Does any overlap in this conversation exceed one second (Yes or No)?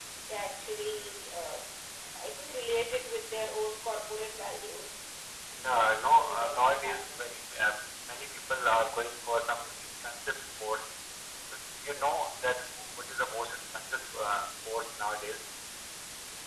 Yes